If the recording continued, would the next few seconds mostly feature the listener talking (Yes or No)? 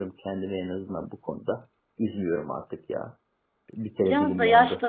Yes